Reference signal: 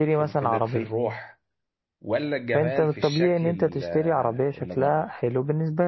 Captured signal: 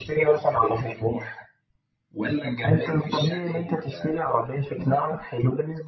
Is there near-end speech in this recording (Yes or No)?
No